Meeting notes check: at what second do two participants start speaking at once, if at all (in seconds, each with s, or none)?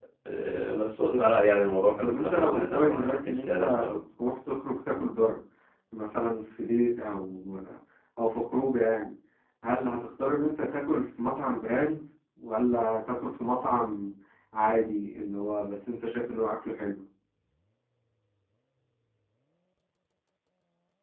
2.0 s